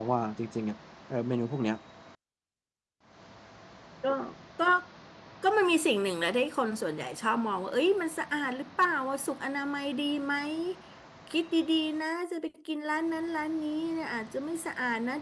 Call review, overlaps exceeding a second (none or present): none